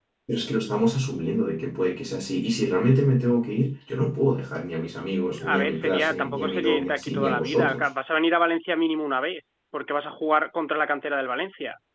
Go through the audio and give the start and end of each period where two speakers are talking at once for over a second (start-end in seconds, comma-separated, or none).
5.5-7.8